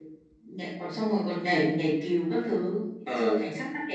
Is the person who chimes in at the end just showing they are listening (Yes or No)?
Yes